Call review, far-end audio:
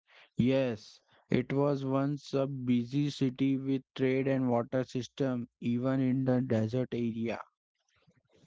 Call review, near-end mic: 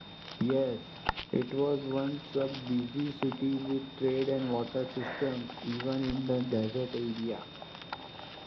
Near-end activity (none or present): none